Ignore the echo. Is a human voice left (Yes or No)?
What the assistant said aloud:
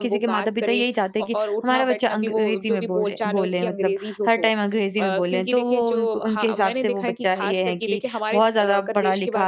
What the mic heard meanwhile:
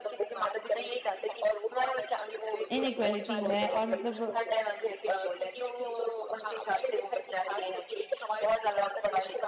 Yes